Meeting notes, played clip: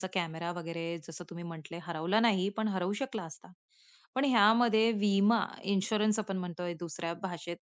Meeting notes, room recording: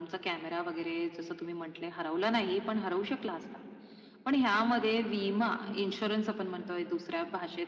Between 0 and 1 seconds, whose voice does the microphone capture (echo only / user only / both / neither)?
echo only